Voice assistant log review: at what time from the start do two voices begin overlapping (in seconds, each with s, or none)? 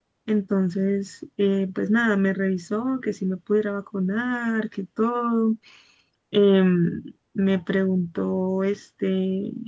none